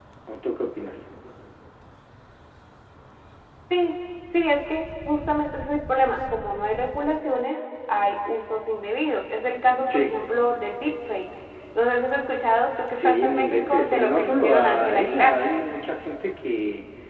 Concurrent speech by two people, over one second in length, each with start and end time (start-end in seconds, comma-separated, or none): 12.9-15.4